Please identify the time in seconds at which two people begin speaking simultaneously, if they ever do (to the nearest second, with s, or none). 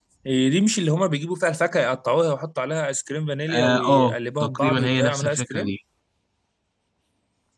3 s